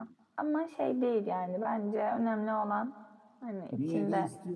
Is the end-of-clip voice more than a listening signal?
Yes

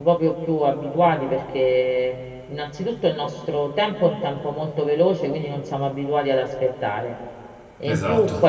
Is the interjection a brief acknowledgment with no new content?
Yes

